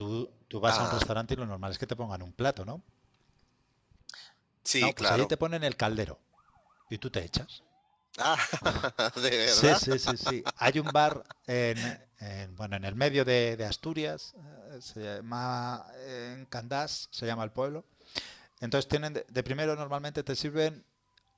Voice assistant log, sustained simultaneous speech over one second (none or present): none